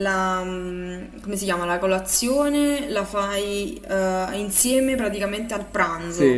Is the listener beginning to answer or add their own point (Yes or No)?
Yes